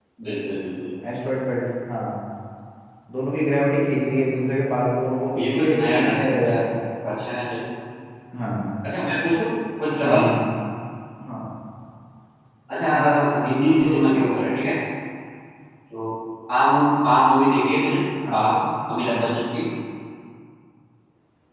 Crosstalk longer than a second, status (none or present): present